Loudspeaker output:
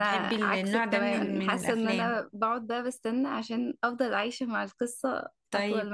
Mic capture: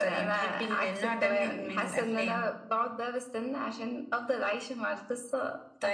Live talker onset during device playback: none

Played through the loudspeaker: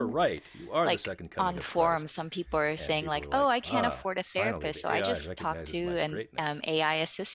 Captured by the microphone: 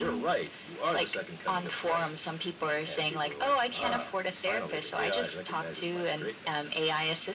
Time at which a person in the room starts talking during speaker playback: none

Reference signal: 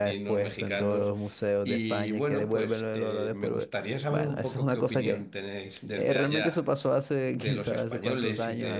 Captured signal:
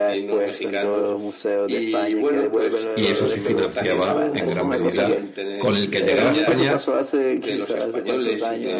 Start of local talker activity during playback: 2.9 s

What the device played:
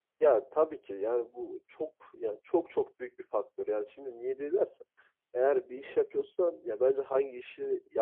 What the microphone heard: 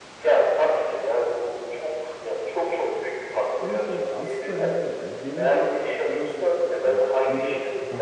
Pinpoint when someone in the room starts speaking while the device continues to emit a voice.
3.6 s

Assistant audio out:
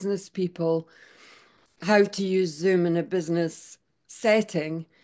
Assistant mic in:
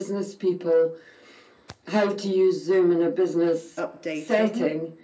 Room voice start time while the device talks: 3.8 s

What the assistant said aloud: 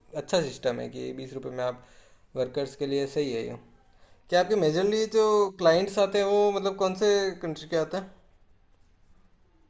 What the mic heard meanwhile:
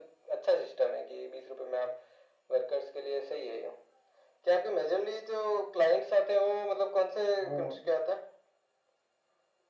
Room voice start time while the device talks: 7.4 s

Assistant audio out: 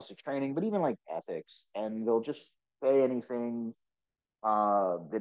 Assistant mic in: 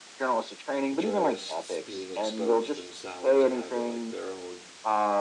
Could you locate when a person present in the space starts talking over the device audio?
1.0 s

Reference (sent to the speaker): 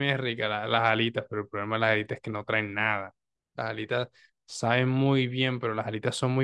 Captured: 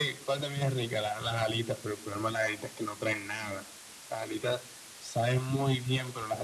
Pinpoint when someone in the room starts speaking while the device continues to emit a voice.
none

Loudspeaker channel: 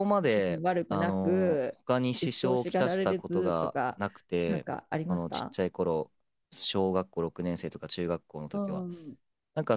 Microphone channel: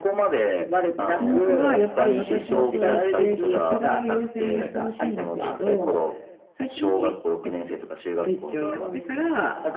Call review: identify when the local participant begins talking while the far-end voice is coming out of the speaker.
1.1 s

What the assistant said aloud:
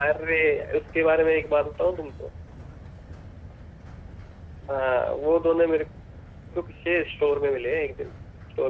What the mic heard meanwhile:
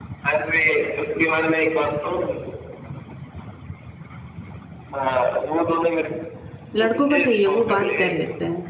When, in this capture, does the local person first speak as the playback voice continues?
6.7 s

